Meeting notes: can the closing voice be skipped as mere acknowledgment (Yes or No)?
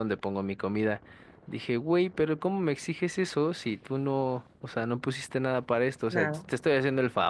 Yes